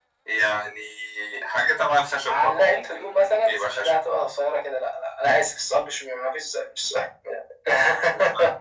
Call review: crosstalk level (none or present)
present